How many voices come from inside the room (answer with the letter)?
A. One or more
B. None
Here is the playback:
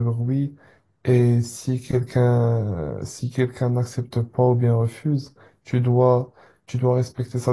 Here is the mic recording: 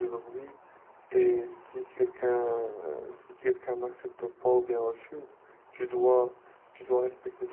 B